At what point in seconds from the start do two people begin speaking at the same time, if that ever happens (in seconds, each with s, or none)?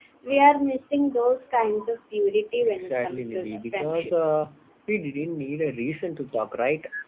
2.6 s